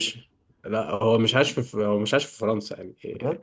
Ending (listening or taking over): listening